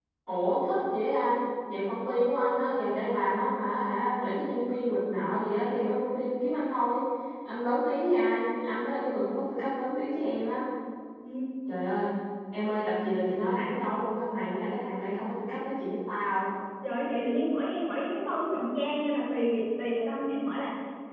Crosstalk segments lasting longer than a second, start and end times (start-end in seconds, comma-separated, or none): none